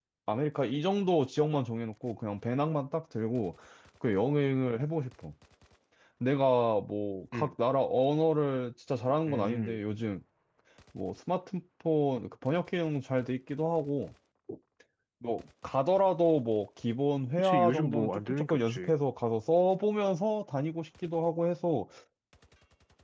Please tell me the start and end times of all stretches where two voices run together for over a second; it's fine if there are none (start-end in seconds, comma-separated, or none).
17.4-18.9